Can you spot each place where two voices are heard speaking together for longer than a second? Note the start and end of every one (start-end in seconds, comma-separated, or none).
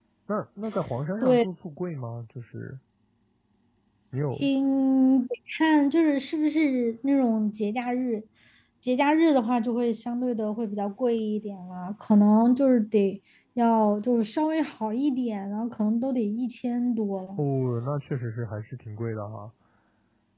none